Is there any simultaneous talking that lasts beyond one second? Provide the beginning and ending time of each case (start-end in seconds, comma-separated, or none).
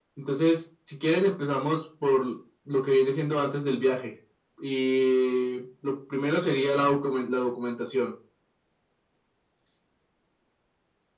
none